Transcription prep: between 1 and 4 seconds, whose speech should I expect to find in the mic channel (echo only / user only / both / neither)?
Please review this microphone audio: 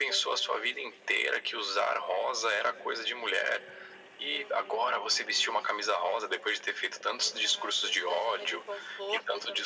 echo only